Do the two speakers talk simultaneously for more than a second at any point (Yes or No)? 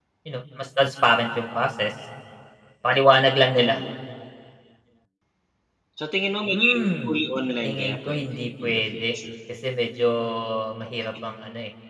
Yes